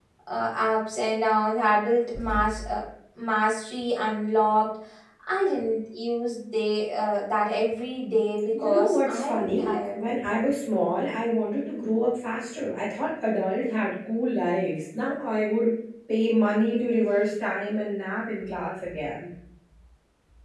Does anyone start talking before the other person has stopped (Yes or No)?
Yes